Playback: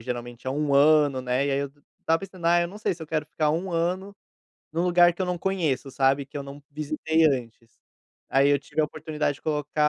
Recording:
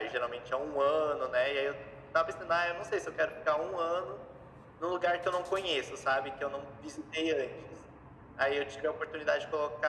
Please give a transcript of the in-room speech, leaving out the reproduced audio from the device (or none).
none